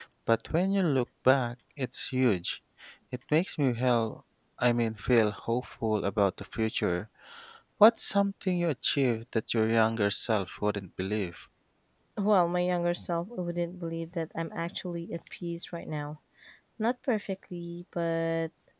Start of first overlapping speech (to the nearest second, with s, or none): none